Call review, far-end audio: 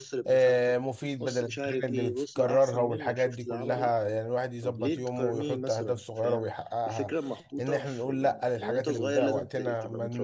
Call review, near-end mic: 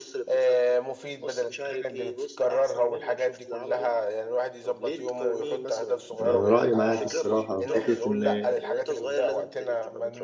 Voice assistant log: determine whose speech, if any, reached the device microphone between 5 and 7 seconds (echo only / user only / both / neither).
both